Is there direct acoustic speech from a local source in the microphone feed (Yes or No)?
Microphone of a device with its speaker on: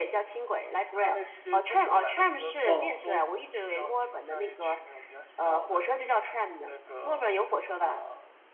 Yes